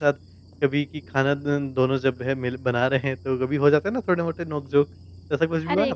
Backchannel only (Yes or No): No